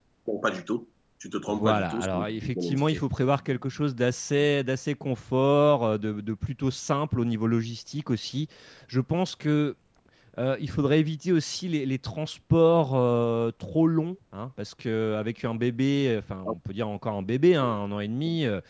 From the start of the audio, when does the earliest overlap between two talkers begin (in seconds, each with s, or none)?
1.5 s